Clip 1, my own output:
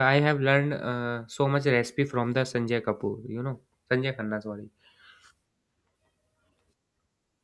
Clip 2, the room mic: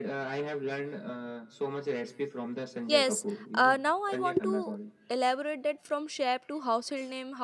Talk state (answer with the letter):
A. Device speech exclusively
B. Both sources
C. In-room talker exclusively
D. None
B